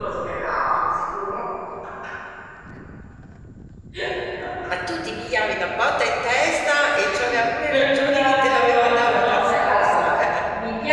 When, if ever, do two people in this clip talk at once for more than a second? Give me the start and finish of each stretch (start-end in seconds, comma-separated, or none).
7.7-10.0